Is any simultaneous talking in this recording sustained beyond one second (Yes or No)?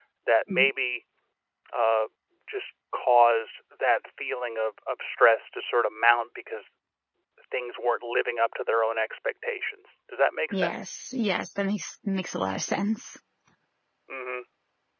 No